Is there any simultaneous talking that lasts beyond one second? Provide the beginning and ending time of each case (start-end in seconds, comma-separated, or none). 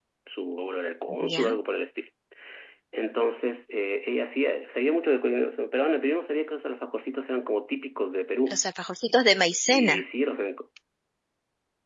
none